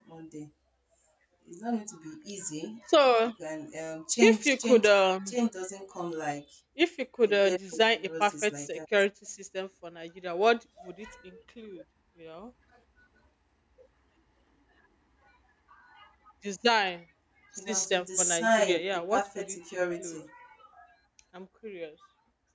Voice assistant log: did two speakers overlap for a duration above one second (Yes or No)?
Yes